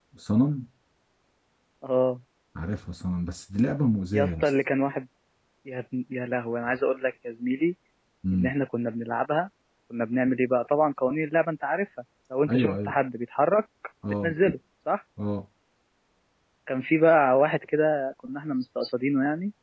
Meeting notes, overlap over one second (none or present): none